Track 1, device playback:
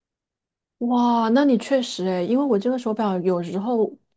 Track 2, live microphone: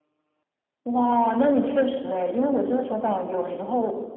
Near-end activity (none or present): none